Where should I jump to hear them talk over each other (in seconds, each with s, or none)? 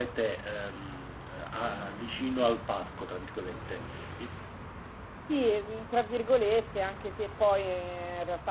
none